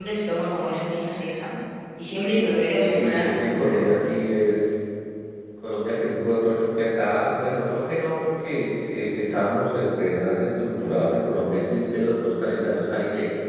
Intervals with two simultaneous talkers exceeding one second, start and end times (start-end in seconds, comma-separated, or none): 2.3-4.1